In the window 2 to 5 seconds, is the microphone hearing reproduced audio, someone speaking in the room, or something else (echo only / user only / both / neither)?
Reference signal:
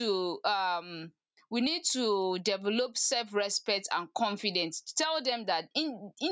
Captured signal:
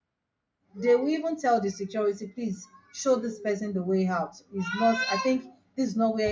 user only